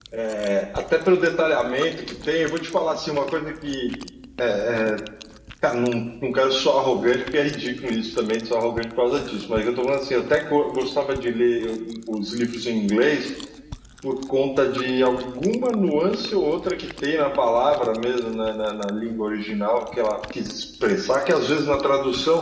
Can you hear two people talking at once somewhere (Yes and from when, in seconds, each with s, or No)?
No